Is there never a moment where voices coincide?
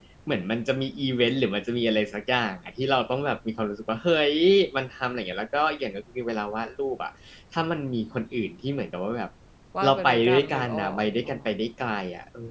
No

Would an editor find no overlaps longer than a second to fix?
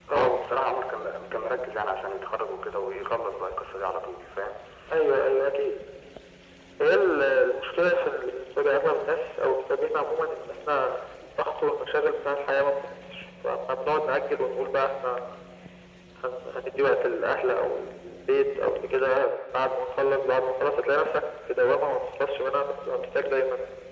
Yes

